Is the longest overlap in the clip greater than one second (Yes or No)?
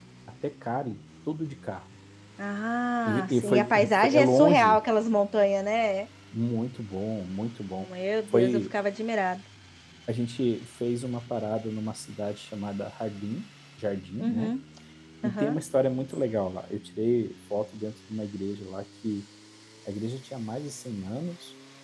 Yes